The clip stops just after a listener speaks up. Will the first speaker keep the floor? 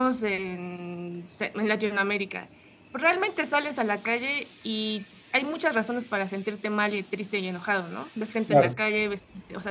Yes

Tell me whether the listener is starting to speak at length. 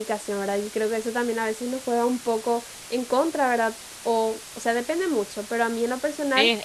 Yes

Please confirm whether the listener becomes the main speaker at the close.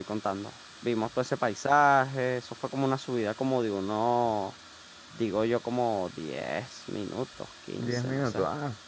Yes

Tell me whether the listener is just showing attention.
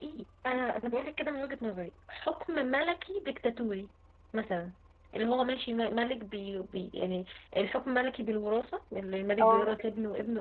Yes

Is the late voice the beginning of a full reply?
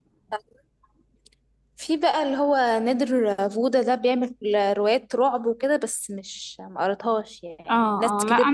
Yes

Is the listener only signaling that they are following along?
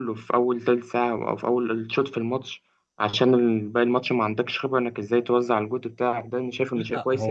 No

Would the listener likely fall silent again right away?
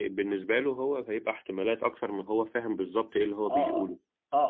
No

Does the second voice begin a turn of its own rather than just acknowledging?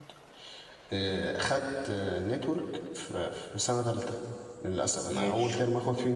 No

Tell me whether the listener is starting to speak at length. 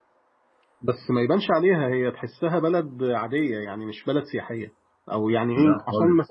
No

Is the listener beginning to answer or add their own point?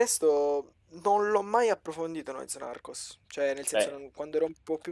No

